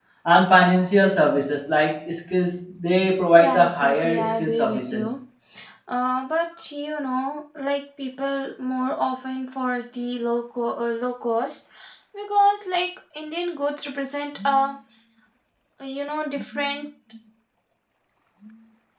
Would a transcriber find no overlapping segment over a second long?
No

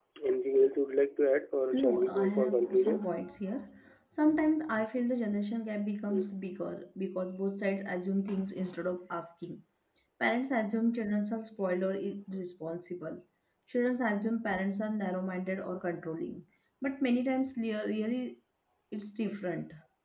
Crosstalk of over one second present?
Yes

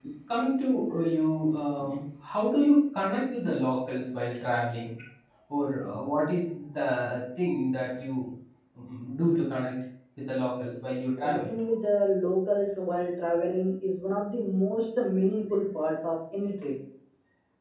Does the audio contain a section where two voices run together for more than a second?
No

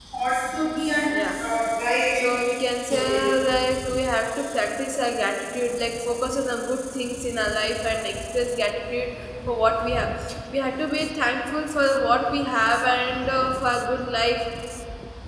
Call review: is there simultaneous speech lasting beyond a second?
No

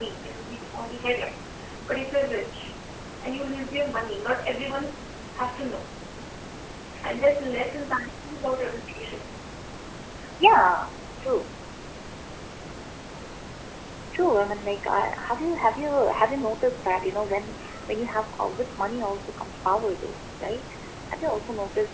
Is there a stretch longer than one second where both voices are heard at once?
No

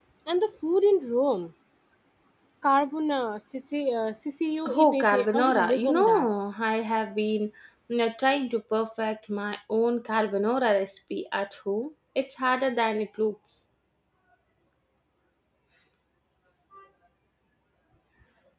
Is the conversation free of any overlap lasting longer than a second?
No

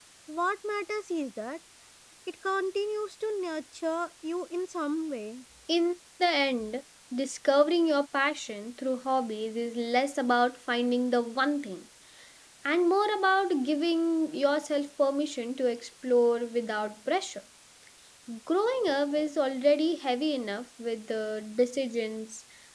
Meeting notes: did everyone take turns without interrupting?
Yes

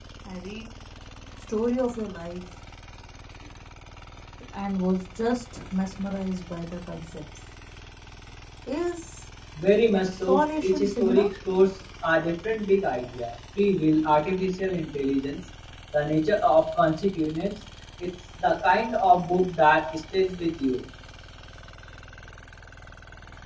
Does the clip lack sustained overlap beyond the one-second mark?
No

